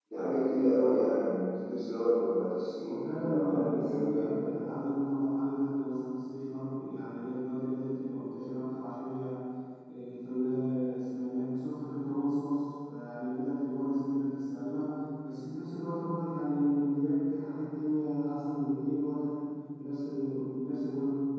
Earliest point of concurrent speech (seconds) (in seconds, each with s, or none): 2.8 s